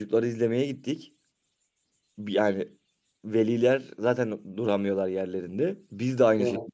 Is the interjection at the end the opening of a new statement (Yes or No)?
No